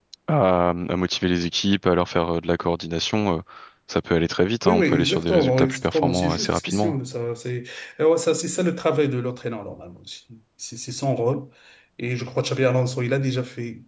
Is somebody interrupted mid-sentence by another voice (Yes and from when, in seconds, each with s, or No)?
Yes, from 4.7 s